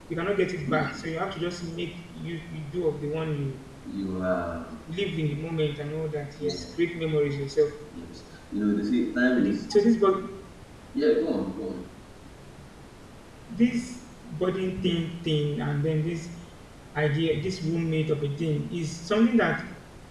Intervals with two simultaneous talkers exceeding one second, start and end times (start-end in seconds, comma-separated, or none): none